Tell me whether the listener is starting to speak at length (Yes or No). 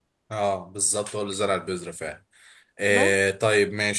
No